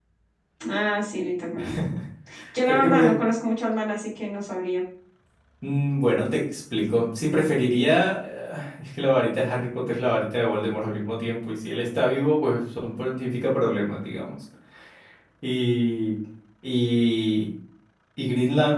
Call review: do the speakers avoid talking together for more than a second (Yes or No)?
Yes